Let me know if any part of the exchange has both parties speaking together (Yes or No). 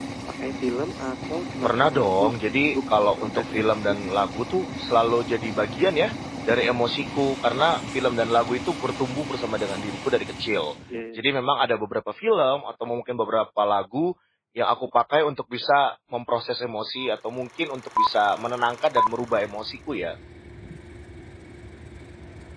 Yes